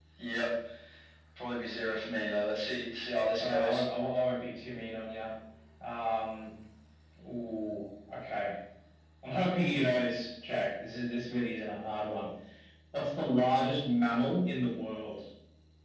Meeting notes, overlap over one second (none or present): none